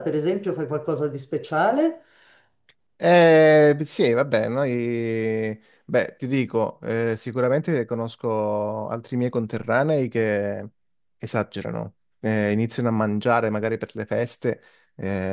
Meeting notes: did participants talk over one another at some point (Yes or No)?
No